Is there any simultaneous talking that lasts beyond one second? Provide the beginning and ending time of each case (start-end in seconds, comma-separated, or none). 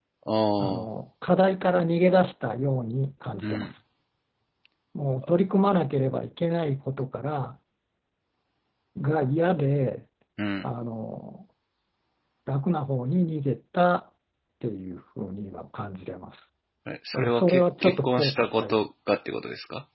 17.1-18.7